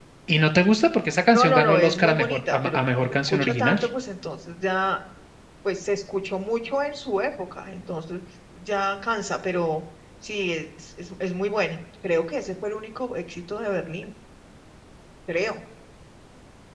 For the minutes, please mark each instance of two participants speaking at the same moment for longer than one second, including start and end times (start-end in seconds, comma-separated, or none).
1.3-3.8